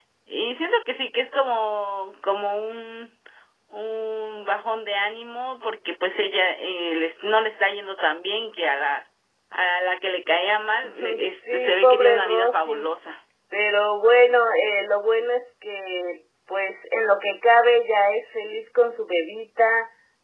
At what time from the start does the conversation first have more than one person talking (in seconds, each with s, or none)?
10.8 s